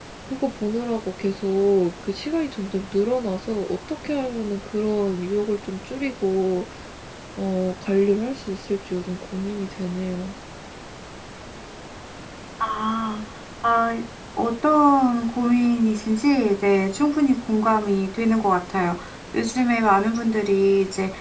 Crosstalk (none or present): none